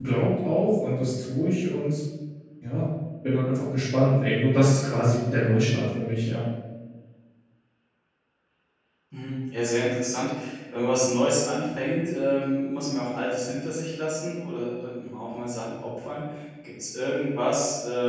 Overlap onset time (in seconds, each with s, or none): none